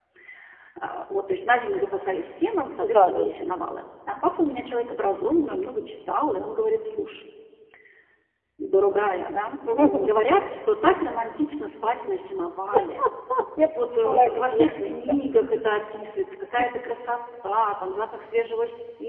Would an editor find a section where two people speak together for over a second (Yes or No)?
Yes